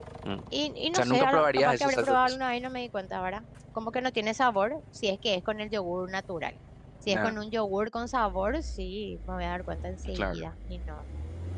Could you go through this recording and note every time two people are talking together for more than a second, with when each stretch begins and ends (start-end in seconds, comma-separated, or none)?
0.9-2.4